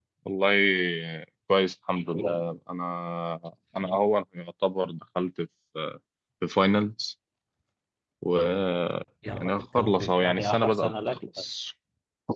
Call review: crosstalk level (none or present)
present